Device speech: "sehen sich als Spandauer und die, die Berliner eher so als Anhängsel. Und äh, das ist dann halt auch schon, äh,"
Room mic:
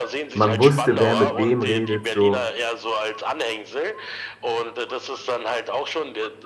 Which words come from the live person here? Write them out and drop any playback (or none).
man wusste, wer mit wem redet, so.